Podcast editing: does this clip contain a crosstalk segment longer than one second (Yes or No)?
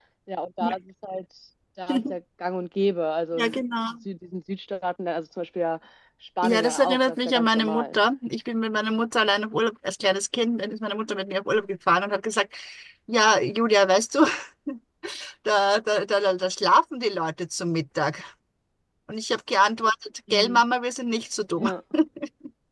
Yes